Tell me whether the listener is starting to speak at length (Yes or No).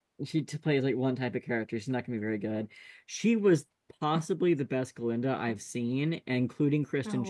No